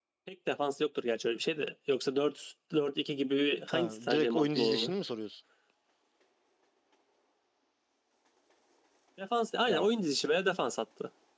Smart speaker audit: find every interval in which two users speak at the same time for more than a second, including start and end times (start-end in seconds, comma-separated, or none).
3.7-4.9